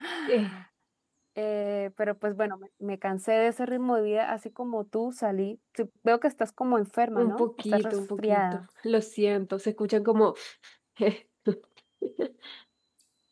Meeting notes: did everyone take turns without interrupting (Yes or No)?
No